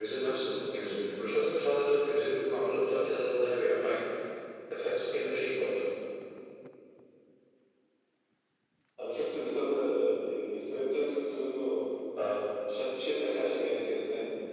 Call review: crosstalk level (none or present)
none